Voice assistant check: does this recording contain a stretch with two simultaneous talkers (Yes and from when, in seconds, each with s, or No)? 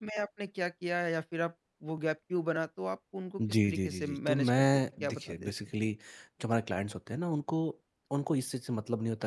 Yes, from 3.4 s